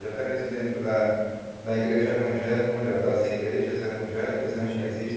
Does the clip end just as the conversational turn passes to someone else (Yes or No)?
No